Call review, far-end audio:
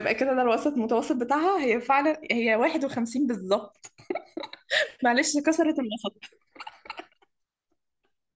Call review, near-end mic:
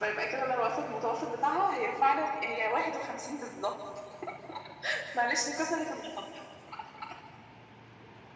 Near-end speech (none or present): none